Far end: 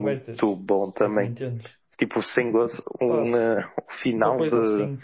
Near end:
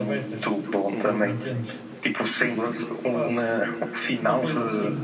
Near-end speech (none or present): present